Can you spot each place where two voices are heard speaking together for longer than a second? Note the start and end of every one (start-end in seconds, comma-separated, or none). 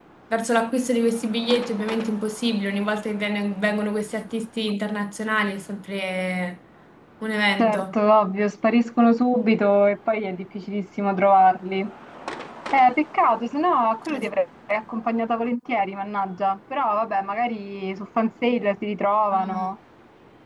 none